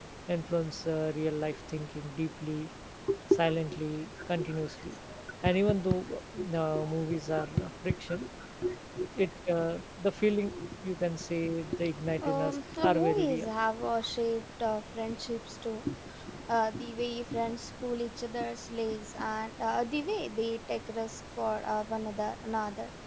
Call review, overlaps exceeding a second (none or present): present